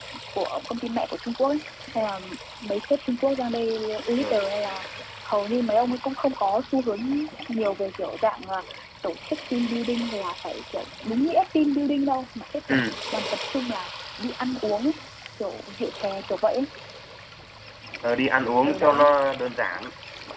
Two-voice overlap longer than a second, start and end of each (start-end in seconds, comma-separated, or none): none